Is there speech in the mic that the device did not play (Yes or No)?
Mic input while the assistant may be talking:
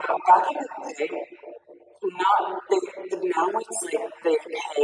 No